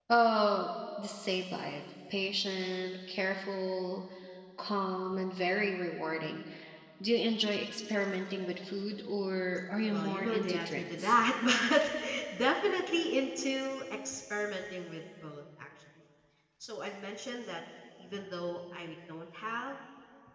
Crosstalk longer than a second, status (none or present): present